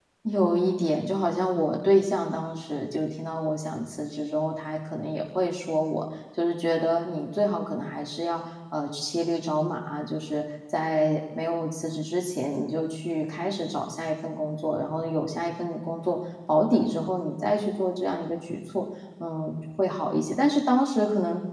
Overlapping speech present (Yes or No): No